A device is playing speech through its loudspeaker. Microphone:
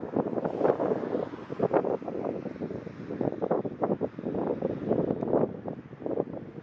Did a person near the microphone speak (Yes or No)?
No